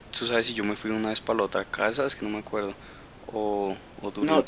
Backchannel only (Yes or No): No